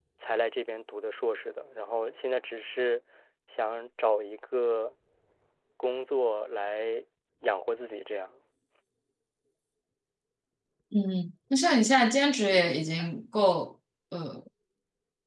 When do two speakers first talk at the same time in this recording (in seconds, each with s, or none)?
none